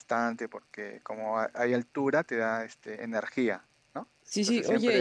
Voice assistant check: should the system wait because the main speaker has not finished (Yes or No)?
No